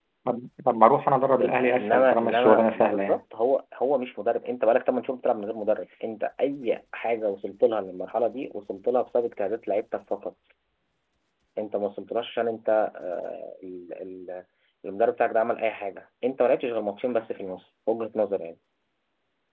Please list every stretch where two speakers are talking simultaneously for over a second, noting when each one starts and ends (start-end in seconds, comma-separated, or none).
1.3-3.2